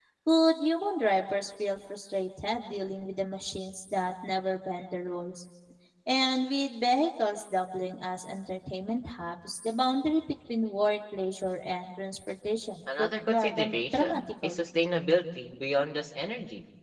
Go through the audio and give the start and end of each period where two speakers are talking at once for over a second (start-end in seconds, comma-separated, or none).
13.0-14.6